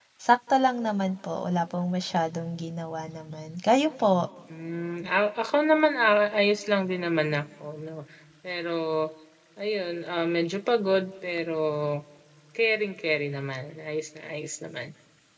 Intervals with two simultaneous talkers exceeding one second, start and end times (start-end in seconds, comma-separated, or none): none